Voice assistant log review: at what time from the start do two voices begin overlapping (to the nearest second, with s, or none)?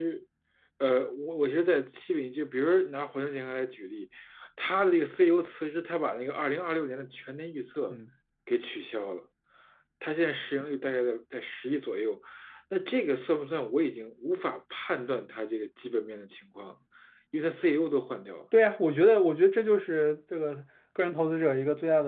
none